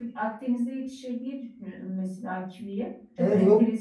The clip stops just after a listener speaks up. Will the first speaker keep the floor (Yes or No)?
No